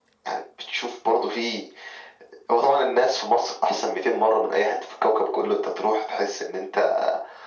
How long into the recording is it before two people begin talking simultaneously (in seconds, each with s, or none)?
none